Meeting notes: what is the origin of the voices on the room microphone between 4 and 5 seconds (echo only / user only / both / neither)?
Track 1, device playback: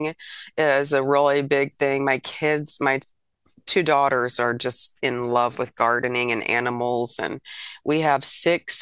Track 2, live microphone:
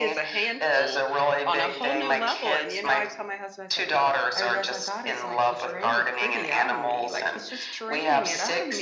both